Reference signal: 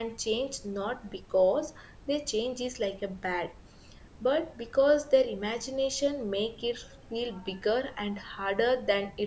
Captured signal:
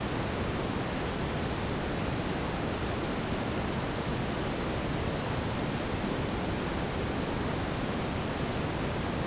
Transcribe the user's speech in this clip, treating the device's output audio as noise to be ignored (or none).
none